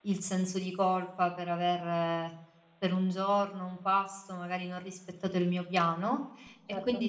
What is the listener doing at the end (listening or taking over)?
listening